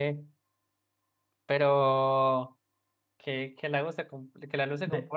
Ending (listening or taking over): listening